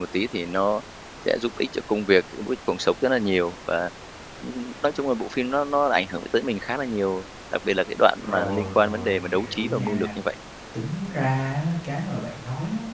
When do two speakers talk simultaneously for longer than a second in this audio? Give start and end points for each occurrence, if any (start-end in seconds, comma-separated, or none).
8.2-10.1